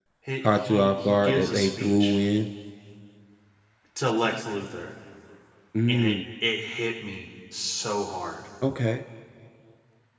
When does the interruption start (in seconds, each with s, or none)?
0.5 s